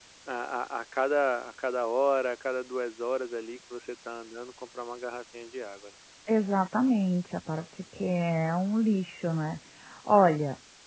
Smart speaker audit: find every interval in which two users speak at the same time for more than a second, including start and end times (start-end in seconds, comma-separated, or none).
none